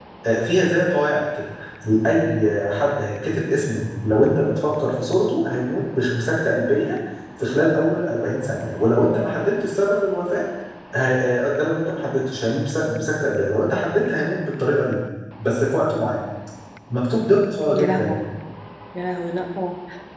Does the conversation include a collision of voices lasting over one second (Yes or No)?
No